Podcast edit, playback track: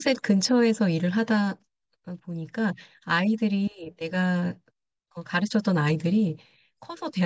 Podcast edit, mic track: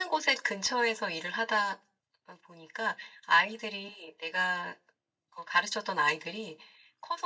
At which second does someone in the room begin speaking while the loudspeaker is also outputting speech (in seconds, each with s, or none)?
none